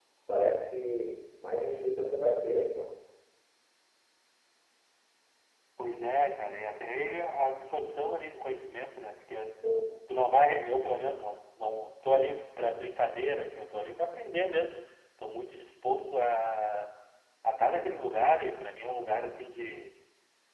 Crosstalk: none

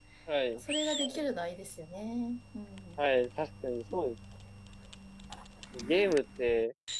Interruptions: none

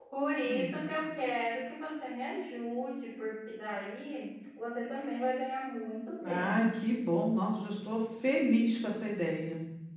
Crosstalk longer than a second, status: none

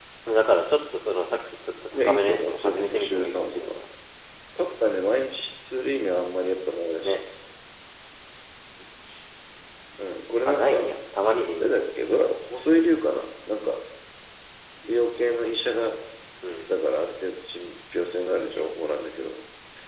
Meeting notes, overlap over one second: present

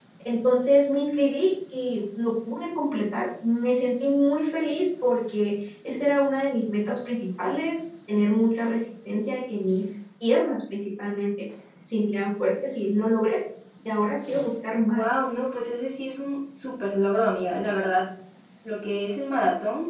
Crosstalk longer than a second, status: none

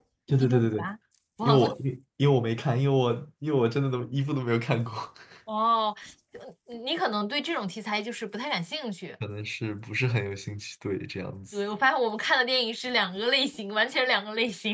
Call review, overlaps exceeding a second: none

